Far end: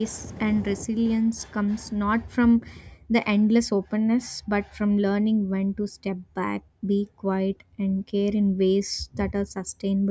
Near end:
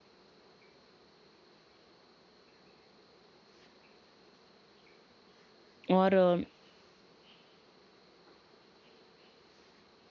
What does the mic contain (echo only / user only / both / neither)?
user only